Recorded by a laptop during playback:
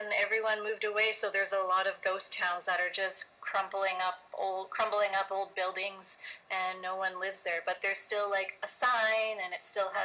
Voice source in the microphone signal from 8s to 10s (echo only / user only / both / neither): echo only